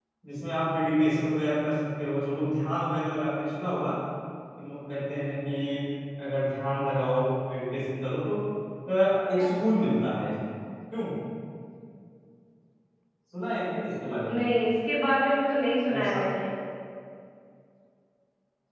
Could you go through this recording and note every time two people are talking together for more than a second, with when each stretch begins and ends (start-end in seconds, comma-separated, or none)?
none